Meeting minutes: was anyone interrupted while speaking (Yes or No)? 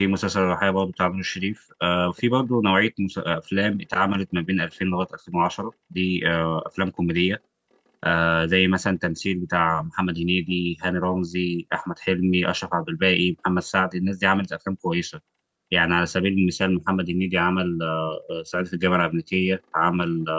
No